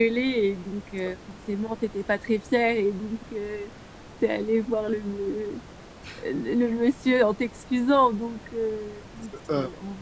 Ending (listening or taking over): listening